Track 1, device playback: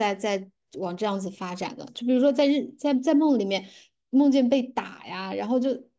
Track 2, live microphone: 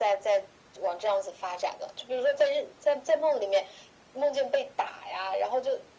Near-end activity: none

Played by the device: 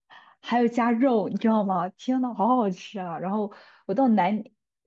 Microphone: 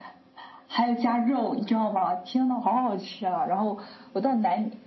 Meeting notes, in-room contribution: none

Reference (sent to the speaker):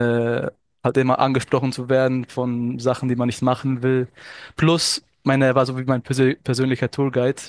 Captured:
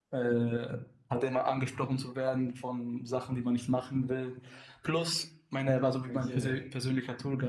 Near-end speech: present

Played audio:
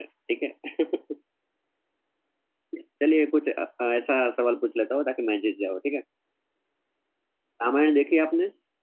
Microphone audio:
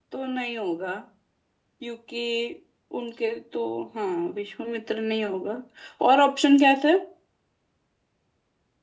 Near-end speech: present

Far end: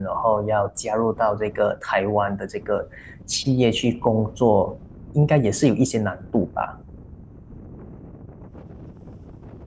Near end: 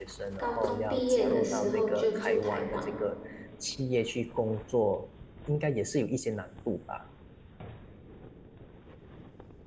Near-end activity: present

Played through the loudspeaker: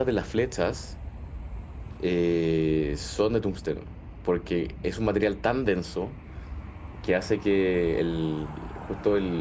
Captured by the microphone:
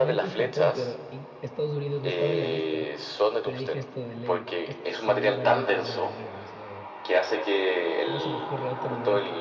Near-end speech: present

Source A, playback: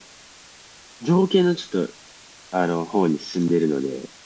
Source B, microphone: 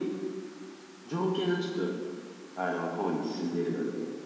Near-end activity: none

